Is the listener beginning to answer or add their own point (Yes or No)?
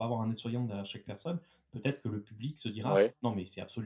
No